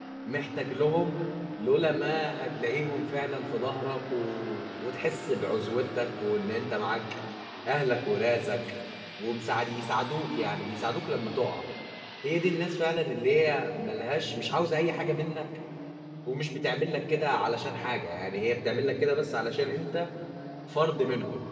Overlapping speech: No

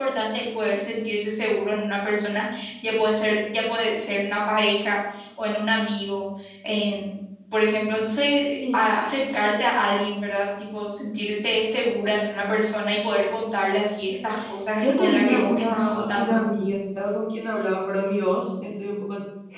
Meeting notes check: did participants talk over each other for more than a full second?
Yes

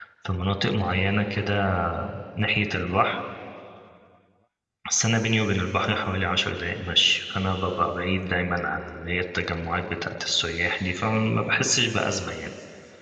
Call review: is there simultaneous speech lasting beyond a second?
No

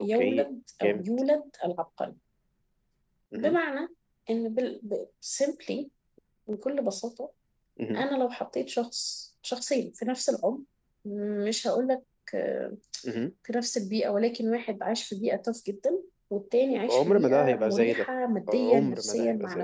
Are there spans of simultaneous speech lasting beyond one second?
Yes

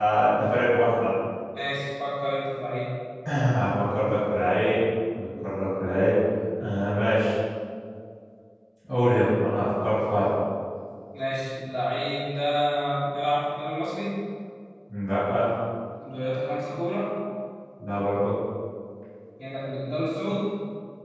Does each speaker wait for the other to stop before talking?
Yes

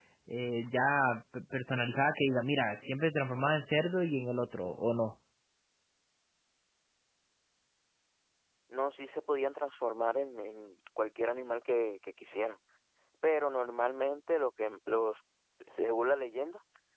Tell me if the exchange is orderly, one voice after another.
Yes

